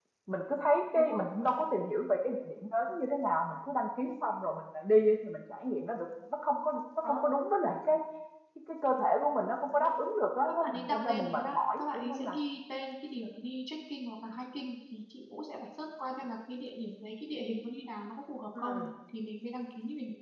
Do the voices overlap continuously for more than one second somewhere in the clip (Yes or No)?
Yes